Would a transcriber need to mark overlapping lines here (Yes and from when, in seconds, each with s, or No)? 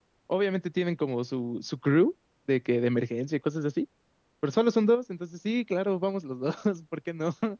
No